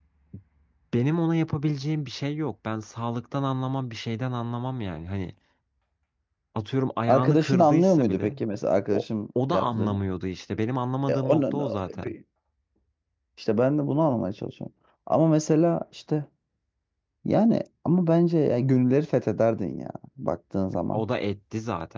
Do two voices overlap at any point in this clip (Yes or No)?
Yes